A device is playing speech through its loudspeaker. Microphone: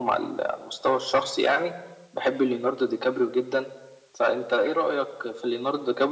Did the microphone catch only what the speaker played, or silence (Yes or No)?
Yes